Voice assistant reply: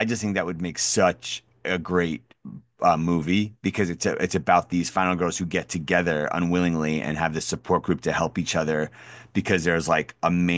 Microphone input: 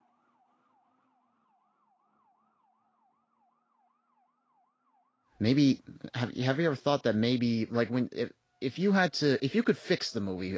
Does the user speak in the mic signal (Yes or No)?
Yes